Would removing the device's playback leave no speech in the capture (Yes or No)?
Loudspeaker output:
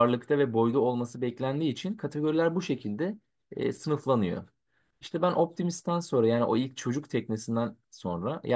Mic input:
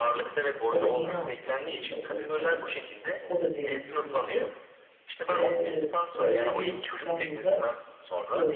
No